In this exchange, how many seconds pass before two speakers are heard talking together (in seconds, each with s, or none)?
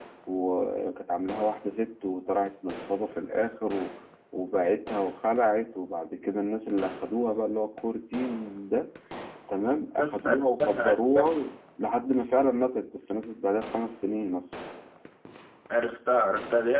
10.0 s